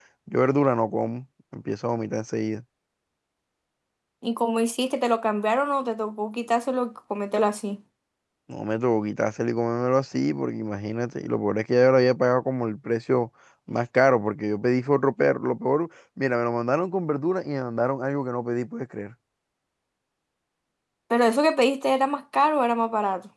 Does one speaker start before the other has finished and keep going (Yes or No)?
No